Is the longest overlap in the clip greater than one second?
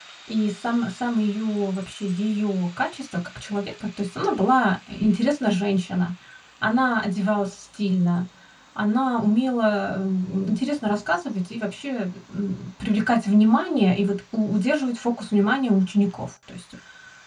No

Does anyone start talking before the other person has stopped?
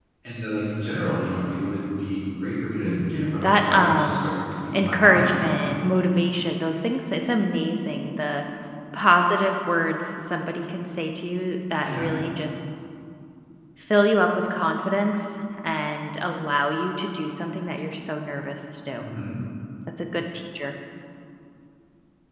Yes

